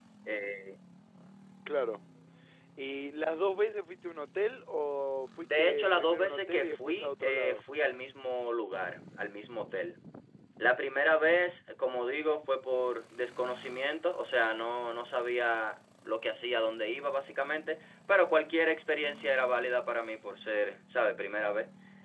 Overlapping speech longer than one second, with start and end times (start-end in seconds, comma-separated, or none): 5.4-7.6